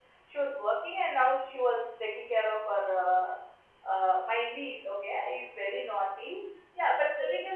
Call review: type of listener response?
listening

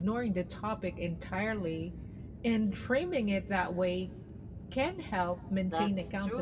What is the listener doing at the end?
taking over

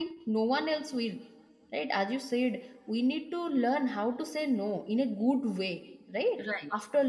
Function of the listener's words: listening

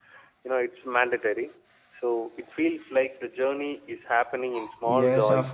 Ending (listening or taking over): taking over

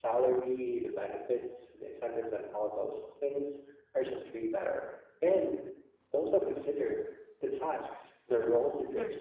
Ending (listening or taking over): listening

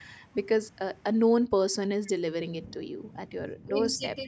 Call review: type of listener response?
taking over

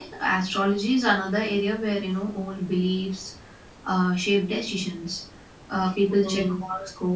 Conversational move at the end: listening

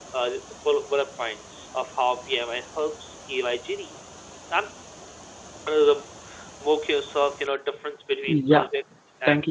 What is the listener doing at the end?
taking over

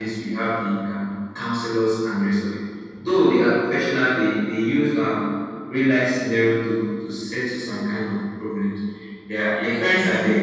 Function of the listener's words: listening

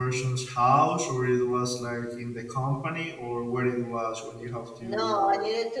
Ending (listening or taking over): taking over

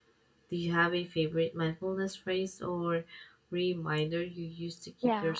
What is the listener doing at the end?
taking over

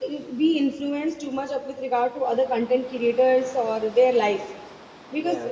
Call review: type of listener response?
listening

